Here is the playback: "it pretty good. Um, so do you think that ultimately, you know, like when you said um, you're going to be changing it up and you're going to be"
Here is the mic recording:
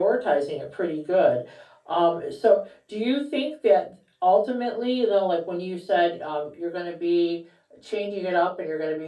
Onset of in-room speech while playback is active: none

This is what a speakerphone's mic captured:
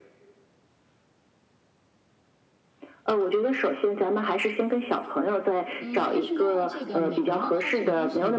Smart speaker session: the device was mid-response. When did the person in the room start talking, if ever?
6 s

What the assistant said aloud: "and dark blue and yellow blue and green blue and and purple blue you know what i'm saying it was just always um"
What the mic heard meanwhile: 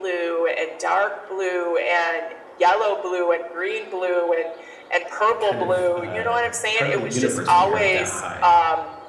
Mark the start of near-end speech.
5 s

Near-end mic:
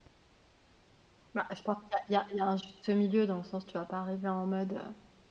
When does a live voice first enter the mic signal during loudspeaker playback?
1 s

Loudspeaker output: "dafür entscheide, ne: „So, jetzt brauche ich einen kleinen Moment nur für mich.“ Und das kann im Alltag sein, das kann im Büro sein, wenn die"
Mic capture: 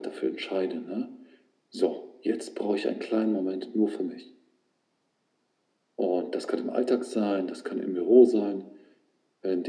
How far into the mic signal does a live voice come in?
none

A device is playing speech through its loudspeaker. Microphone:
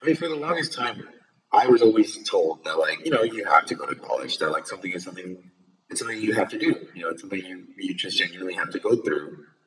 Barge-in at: none

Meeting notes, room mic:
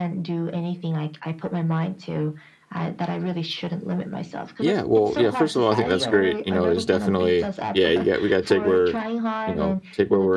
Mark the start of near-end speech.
5 s

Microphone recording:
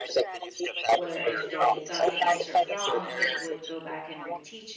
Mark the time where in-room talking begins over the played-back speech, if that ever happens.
1 s

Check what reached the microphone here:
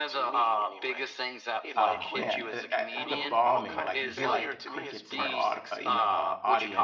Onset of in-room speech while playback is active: 2 s

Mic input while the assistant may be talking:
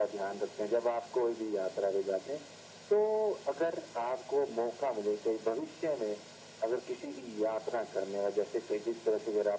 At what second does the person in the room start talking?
none

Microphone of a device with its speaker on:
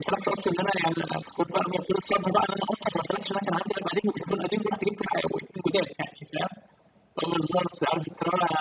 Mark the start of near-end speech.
none

